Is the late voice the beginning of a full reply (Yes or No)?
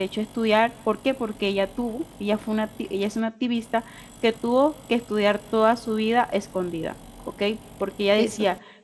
No